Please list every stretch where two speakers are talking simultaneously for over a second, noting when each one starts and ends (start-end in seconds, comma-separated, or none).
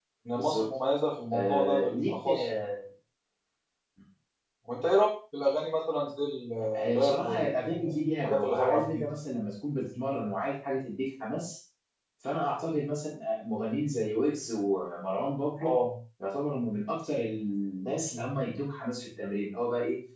1.3-2.7, 6.9-9.1